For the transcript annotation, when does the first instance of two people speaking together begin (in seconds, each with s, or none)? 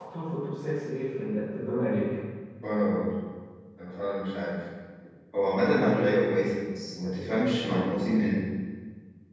none